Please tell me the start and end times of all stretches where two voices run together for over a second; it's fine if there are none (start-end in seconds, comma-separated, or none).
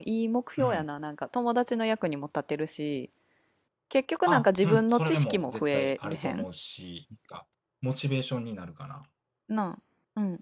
4.3-6.4